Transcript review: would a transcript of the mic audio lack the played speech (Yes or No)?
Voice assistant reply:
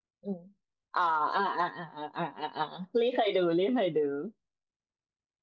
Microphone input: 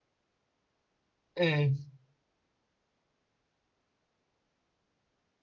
Yes